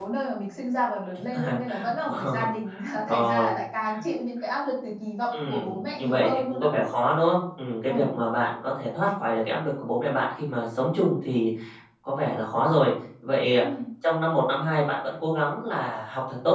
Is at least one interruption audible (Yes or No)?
Yes